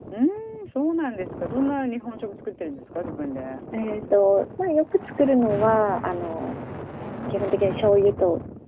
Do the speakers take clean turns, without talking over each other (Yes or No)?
Yes